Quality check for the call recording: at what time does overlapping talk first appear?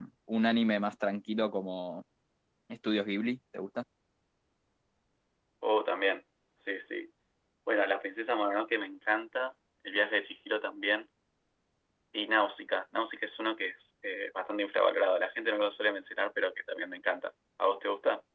none

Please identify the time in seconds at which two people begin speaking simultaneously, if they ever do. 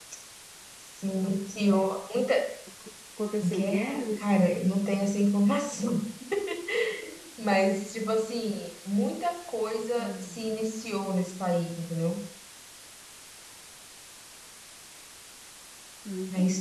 3.4 s

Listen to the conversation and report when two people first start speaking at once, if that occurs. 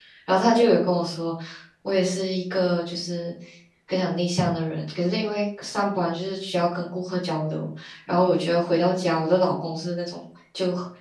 none

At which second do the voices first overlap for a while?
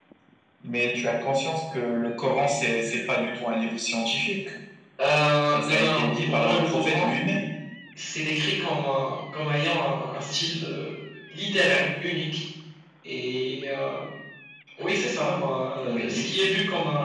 5.5 s

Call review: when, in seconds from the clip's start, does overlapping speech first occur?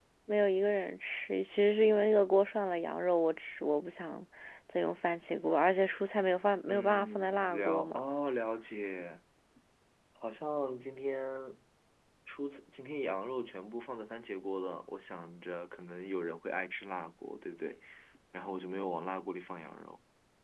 6.7 s

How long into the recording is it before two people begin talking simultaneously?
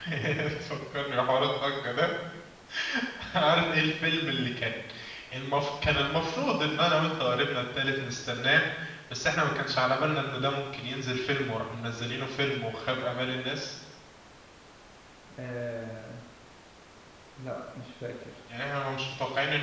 none

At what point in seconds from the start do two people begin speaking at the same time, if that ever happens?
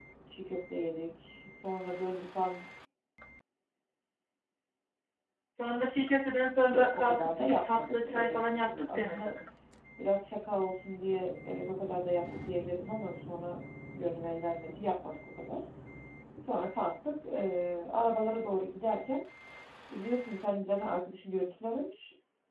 6.7 s

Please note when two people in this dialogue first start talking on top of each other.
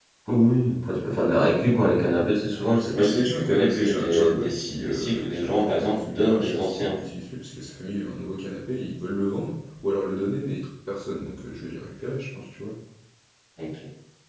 2.9 s

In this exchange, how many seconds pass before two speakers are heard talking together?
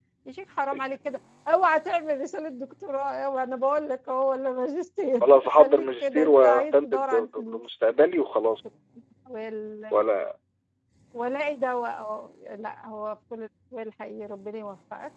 5.2 s

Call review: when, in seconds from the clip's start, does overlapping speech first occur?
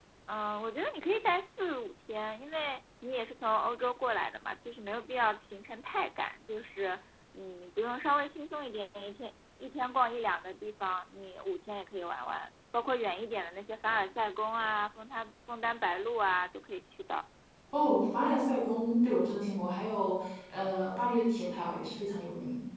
none

